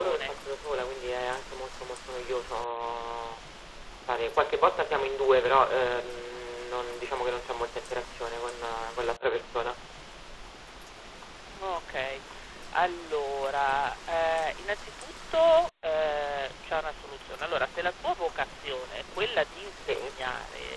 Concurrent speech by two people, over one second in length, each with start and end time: none

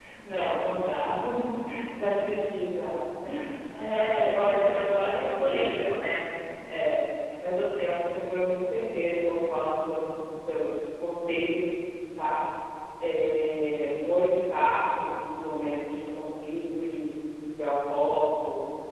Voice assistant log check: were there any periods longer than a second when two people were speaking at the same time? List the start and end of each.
3.8-6.0

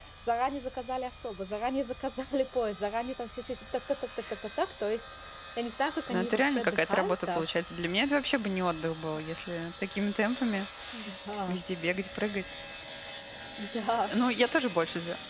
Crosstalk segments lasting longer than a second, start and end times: 6.1-7.4

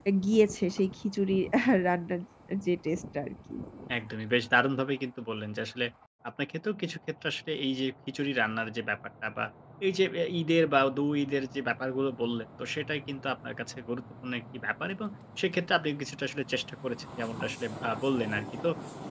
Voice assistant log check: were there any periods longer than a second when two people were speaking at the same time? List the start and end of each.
none

